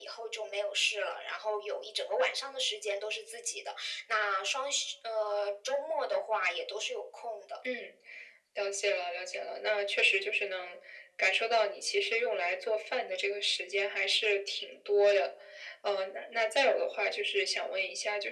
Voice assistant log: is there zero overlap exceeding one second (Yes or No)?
Yes